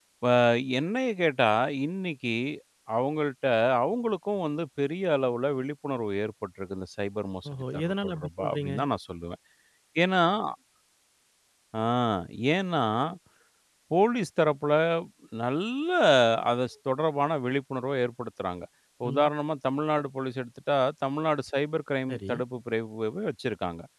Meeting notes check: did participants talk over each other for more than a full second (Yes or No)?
Yes